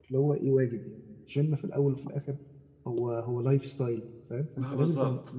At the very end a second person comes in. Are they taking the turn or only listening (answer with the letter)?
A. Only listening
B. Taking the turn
A